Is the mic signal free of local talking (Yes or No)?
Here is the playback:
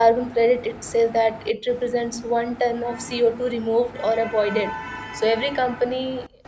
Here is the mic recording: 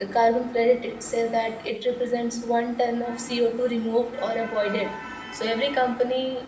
Yes